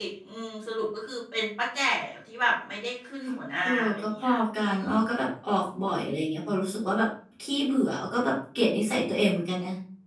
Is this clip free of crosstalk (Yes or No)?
No